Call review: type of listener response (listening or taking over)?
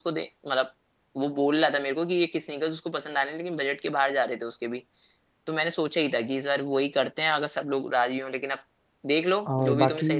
taking over